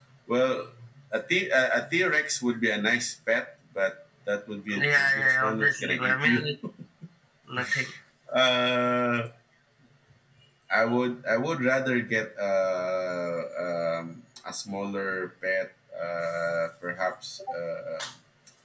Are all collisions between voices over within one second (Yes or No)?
No